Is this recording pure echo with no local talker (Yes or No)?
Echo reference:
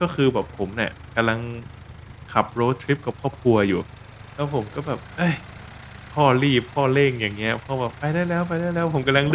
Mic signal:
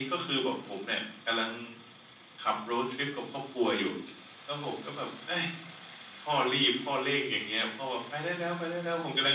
Yes